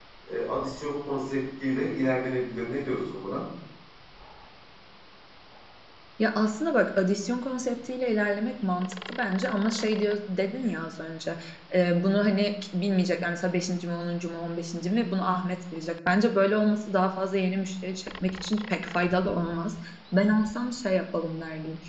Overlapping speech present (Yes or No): No